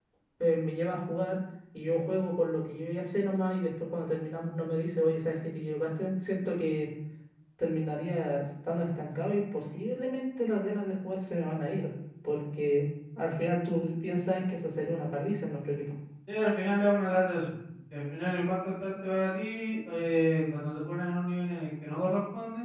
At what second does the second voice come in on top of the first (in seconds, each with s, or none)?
none